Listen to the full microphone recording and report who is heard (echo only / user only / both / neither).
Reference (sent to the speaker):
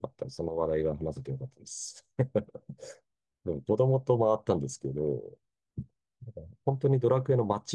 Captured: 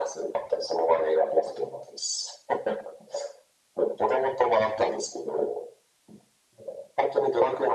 echo only